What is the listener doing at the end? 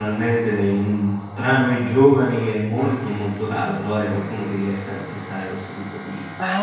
taking over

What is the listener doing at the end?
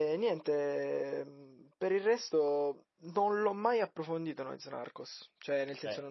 listening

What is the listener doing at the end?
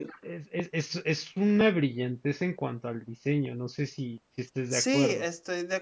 taking over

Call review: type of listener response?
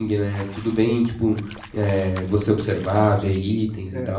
taking over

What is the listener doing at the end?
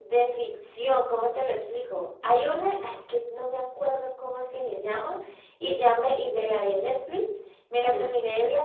listening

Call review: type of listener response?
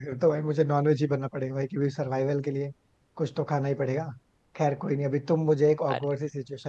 listening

